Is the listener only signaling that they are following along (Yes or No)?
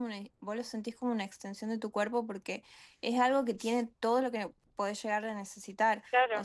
Yes